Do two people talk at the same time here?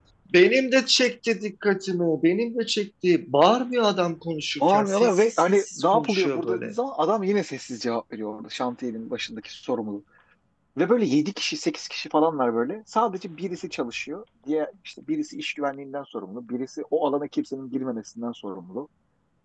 Yes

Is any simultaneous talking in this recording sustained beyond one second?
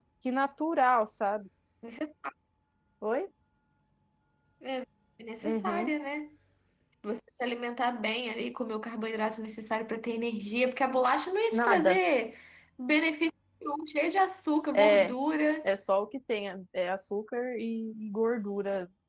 No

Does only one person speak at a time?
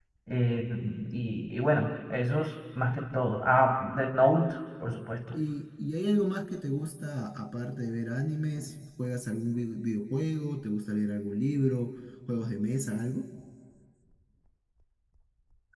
Yes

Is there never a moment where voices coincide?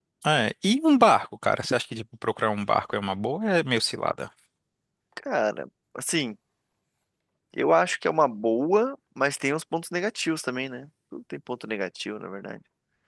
Yes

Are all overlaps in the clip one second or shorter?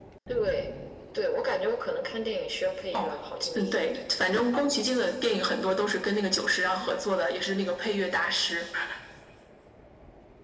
Yes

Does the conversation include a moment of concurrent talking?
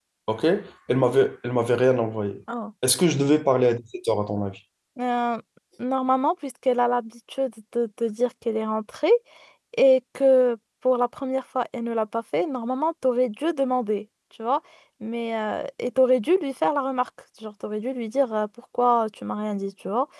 No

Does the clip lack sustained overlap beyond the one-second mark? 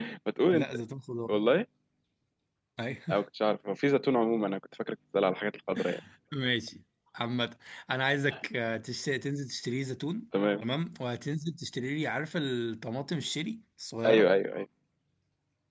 Yes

